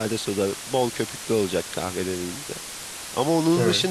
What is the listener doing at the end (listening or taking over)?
listening